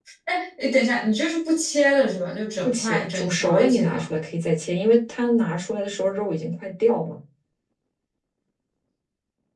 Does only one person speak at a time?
No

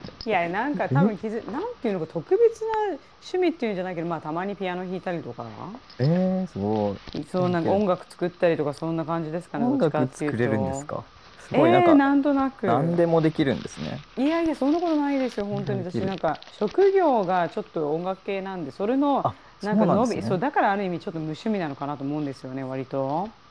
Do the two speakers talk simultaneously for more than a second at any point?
Yes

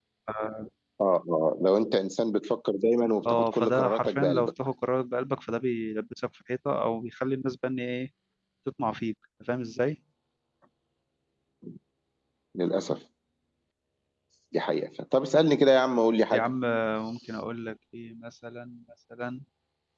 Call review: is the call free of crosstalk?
No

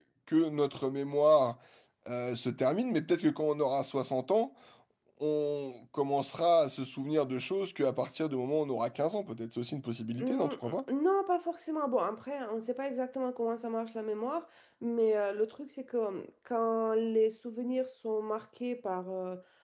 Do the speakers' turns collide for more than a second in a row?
No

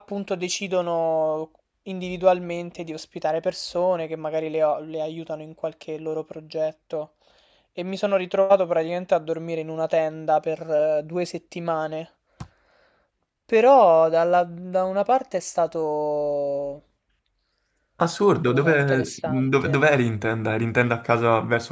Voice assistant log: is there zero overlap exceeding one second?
No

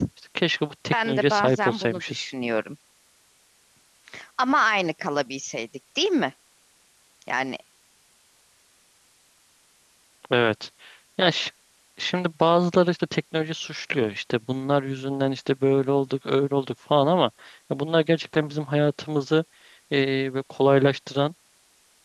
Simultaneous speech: Yes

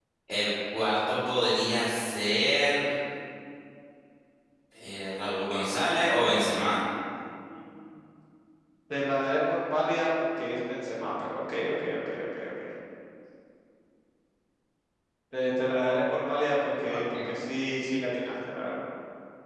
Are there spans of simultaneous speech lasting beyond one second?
No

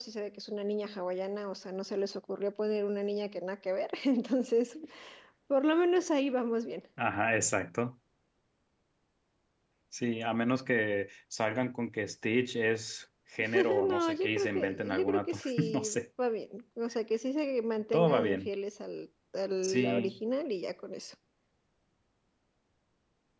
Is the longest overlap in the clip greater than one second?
Yes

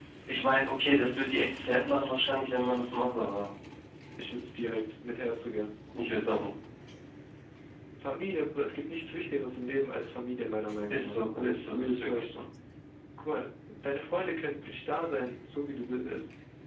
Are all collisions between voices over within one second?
No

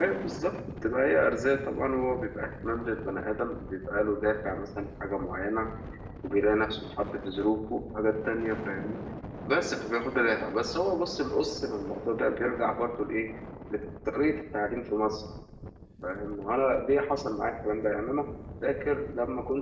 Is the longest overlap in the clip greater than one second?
No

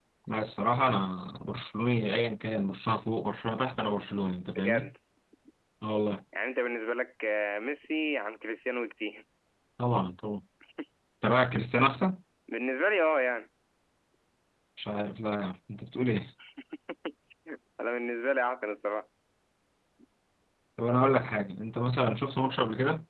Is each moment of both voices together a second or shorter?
Yes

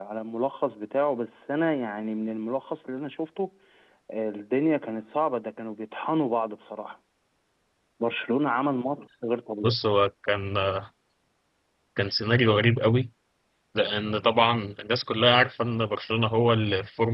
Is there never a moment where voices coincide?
Yes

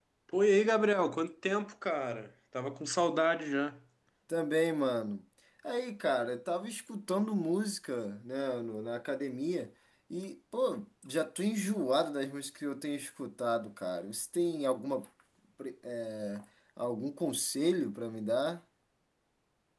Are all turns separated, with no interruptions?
Yes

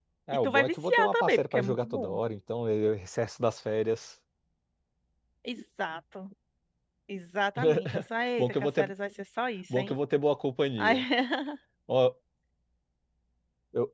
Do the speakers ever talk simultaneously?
Yes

